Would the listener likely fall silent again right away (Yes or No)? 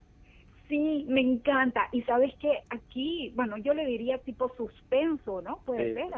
Yes